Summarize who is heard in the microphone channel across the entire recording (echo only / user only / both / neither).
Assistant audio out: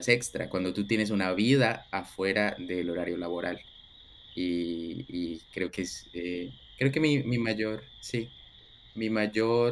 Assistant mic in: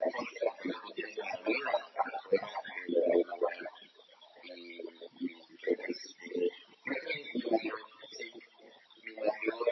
echo only